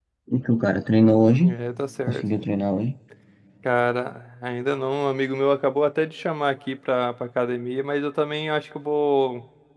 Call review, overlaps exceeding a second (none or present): none